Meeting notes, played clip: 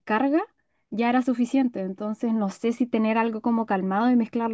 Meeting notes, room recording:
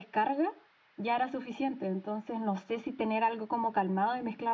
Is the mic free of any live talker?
Yes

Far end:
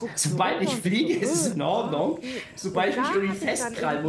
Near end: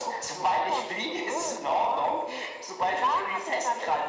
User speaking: No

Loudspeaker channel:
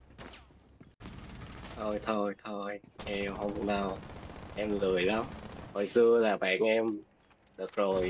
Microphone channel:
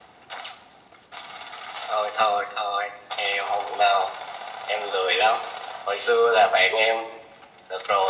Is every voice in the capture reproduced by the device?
Yes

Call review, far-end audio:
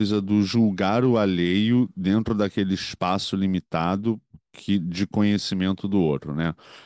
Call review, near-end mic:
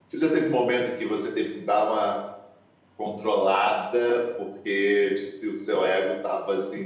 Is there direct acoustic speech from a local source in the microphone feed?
Yes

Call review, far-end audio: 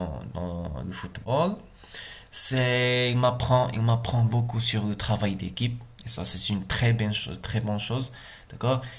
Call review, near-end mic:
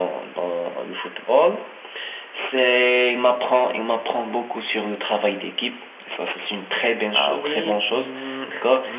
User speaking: Yes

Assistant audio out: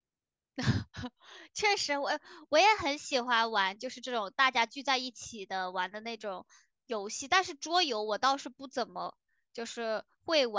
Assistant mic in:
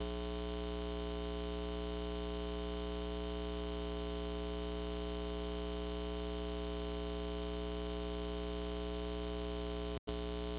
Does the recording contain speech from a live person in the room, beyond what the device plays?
No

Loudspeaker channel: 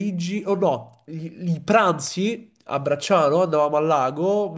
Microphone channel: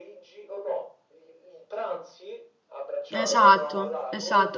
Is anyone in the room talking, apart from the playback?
Yes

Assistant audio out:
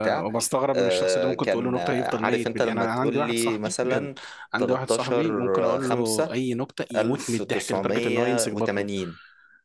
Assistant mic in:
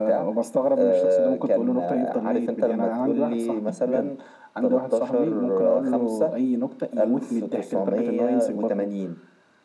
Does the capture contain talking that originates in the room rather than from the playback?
No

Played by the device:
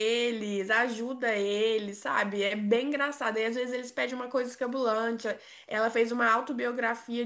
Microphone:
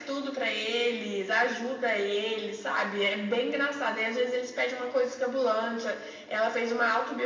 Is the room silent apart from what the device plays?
Yes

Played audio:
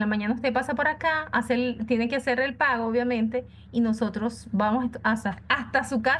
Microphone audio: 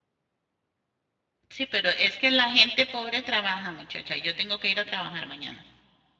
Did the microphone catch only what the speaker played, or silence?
No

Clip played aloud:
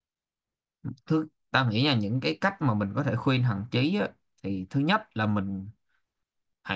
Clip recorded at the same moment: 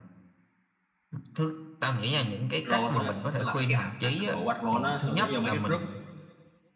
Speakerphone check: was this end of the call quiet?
No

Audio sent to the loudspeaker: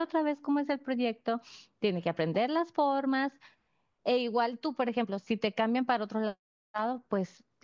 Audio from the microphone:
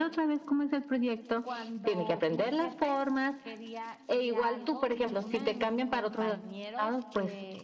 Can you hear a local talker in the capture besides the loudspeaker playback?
Yes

